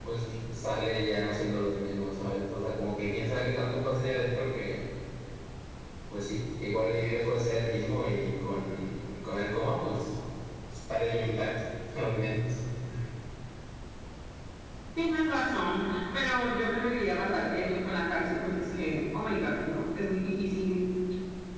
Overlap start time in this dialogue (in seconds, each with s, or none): none